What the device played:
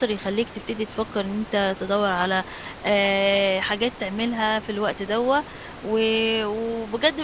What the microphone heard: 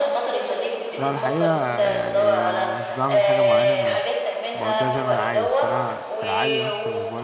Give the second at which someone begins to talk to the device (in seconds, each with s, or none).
1.0 s